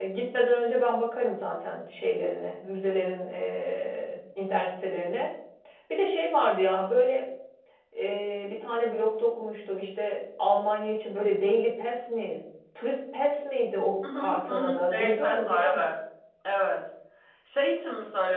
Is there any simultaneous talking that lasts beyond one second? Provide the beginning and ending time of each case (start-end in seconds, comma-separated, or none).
14.2-15.8